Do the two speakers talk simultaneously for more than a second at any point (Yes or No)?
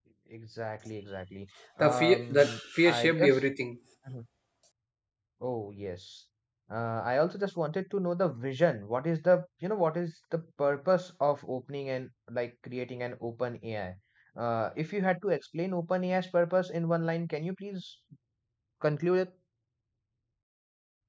Yes